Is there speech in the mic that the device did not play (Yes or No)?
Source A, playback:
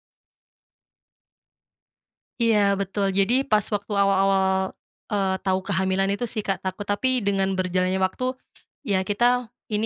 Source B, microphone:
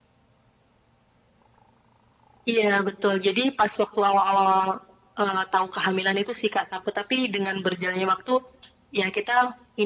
No